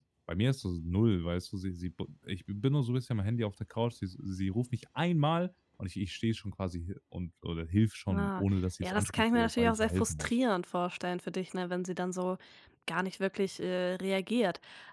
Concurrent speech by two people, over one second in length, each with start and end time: 8.8-10.4

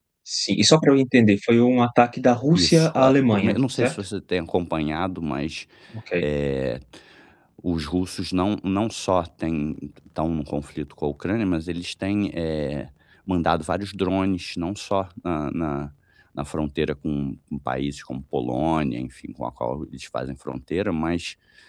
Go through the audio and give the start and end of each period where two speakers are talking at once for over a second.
2.5-4.0

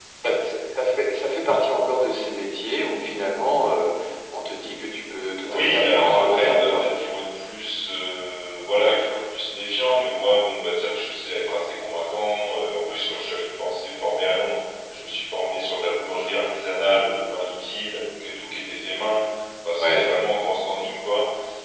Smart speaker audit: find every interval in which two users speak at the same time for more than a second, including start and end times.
5.4-6.9

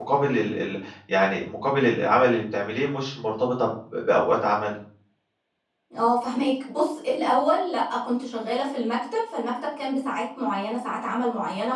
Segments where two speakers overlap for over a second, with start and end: none

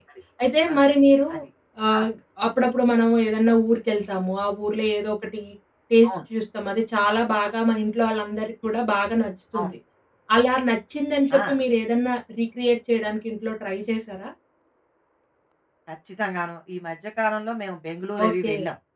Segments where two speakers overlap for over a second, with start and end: none

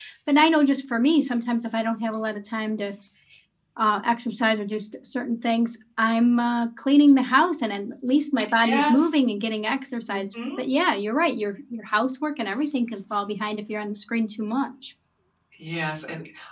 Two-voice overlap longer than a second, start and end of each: none

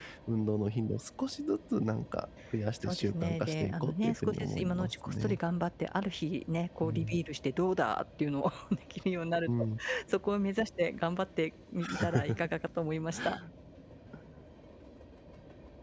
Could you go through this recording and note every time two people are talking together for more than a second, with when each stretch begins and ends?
2.8-5.4

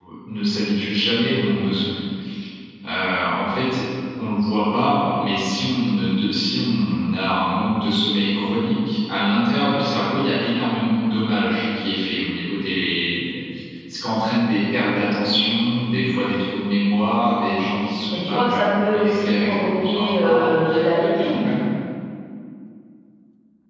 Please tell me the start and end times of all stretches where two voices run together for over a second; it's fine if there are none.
18.1-20.5

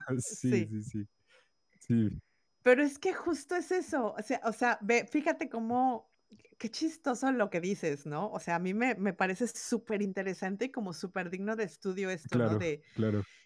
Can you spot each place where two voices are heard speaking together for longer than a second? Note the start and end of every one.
none

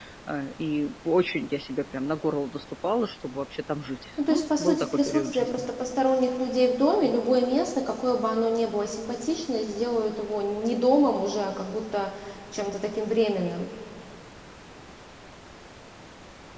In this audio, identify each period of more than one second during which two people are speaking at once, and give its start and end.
4.3-5.6

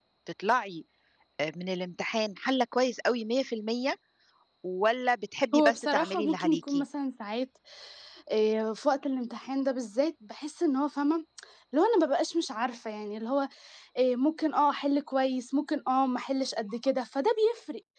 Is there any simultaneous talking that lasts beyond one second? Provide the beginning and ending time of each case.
5.5-6.8

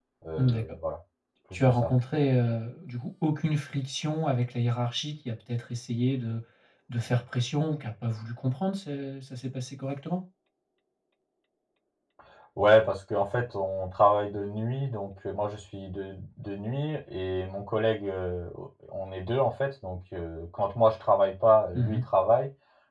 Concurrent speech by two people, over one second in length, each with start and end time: none

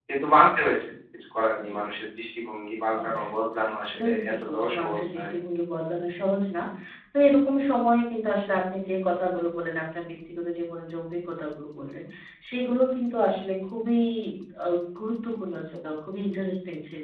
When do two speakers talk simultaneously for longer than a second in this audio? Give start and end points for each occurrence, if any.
3.9-5.3

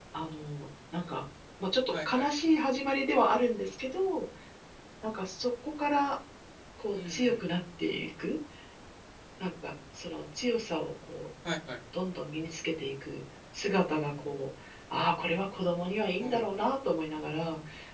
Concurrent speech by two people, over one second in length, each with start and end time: none

